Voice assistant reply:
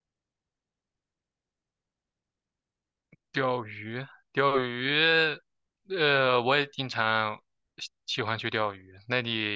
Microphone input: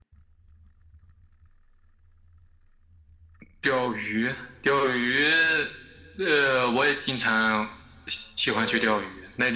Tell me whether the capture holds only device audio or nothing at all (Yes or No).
No